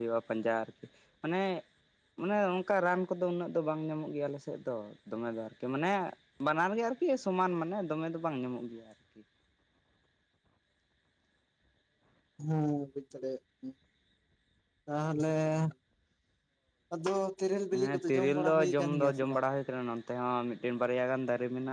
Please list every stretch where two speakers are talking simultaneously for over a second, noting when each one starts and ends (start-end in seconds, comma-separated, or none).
17.9-19.4